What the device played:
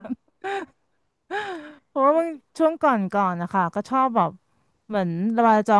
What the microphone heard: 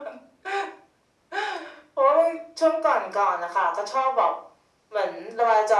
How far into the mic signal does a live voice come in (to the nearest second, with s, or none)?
none